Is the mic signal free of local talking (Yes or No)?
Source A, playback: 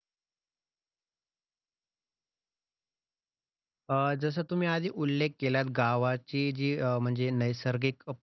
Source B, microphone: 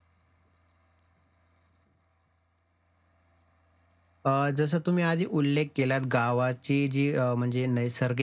Yes